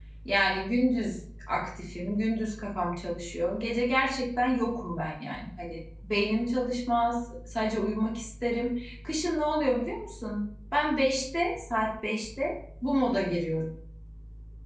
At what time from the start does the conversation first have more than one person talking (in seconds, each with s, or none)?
none